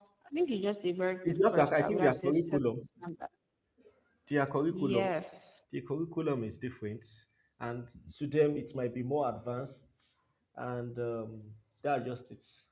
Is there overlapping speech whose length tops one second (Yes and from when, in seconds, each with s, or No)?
Yes, from 1.2 s